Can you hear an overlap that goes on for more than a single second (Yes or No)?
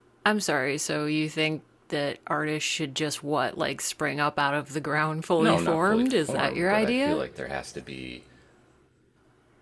Yes